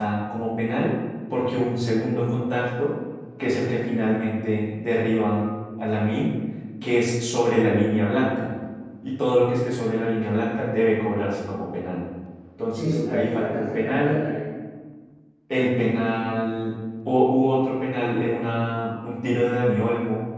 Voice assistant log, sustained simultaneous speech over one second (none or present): present